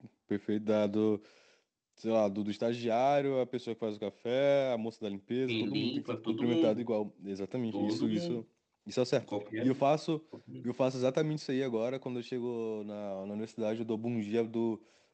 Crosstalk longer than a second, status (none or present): present